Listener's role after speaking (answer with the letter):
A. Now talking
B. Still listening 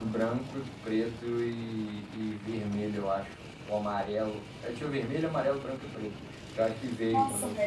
A